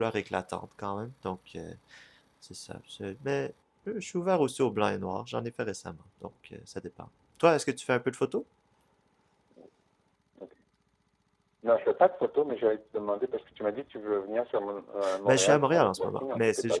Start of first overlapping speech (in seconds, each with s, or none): 15.0 s